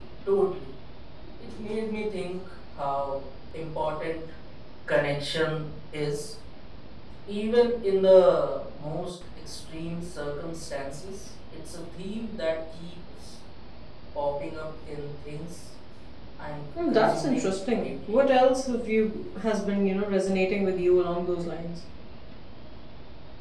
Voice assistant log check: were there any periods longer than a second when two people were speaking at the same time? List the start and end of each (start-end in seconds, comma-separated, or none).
16.9-18.2